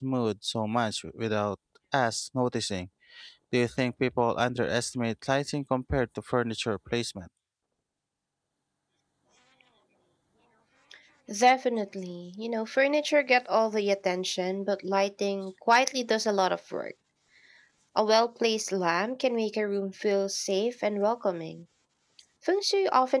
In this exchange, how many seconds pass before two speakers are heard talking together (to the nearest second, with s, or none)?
none